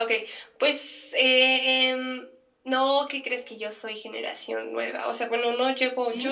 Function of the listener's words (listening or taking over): listening